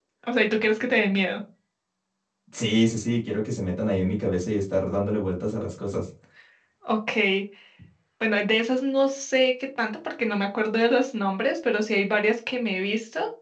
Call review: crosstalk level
none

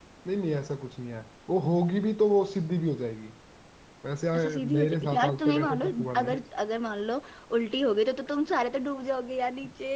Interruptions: present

